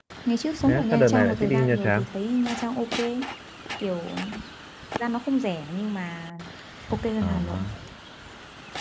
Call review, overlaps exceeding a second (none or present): present